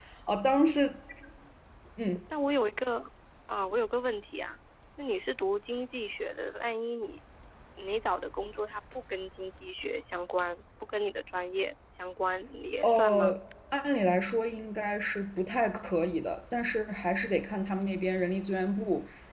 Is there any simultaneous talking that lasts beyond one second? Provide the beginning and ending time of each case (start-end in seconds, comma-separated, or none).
none